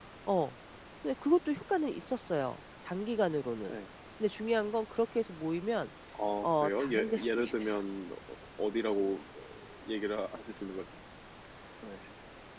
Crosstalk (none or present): present